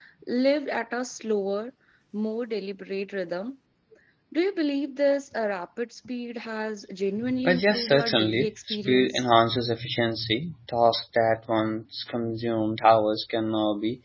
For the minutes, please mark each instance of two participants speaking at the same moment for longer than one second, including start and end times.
7.4-9.2

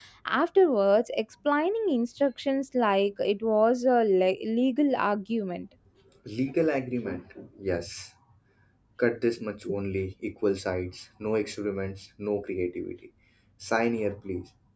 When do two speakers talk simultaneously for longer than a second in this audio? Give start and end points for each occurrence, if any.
none

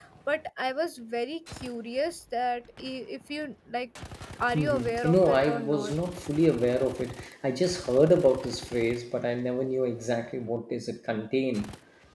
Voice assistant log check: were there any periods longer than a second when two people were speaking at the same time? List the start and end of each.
4.5-5.9

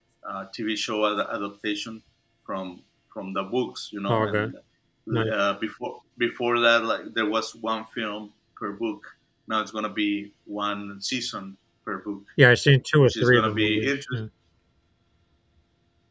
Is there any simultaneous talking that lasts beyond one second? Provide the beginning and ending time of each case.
13.0-14.2

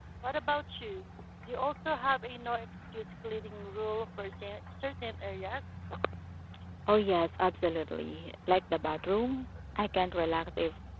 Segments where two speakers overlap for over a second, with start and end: none

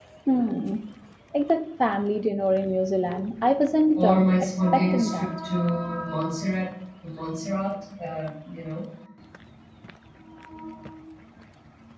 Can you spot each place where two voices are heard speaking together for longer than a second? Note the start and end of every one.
4.0-5.4

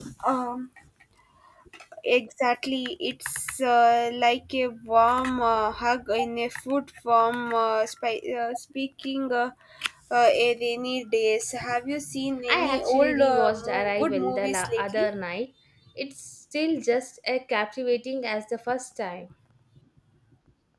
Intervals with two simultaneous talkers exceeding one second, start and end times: 12.5-15.1

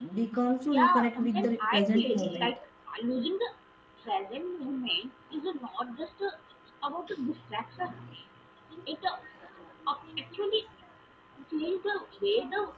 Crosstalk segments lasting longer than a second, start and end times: 0.8-2.6

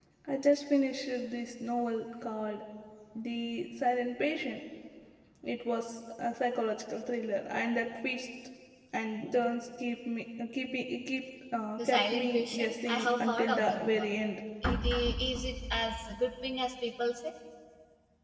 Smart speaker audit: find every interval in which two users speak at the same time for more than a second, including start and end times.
11.8-14.2

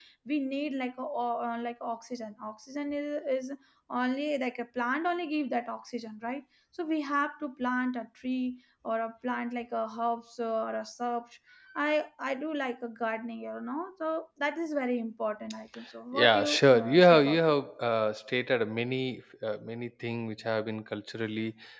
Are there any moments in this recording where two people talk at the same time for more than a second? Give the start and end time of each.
16.1-17.4

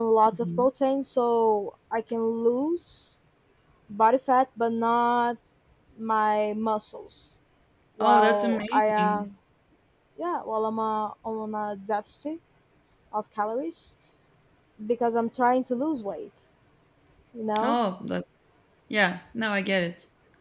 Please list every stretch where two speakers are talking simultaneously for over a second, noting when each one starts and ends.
8.0-9.2

